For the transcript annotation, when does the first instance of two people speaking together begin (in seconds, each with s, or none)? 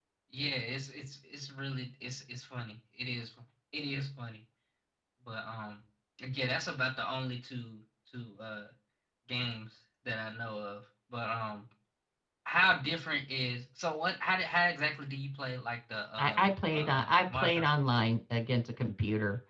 16.2 s